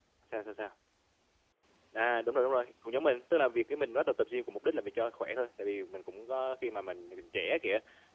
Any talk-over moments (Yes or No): No